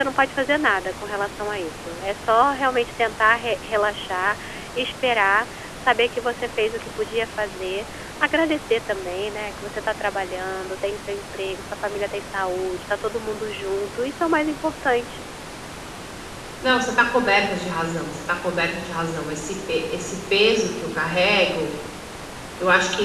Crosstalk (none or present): none